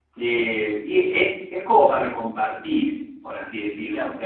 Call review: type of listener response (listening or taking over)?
listening